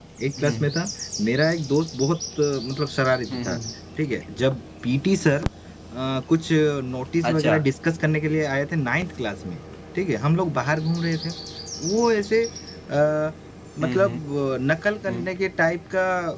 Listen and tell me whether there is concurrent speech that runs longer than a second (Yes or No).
No